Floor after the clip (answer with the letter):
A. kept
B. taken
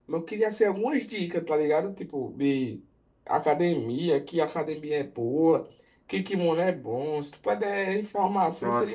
B